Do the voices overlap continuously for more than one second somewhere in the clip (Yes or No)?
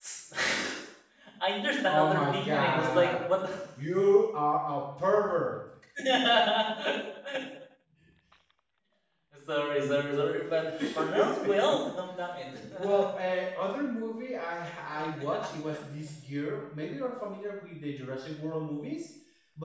Yes